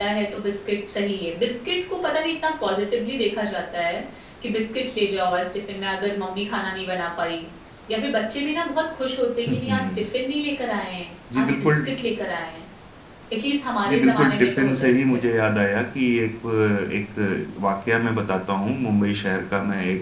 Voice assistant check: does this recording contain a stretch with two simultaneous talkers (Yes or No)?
Yes